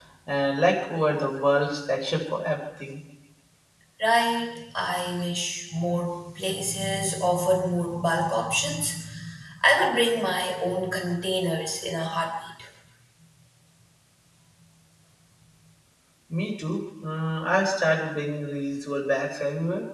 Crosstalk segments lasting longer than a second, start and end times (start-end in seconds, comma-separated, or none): none